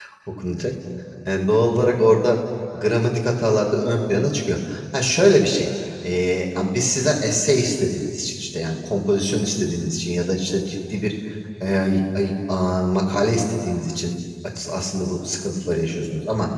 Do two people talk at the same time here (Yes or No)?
No